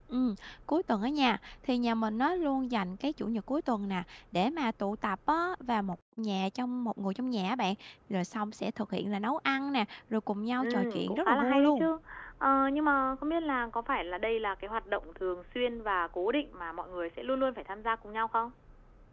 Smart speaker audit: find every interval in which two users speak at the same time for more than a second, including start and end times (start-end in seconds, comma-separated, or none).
10.6-11.9